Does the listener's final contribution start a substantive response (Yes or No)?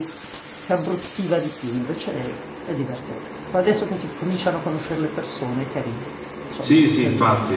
Yes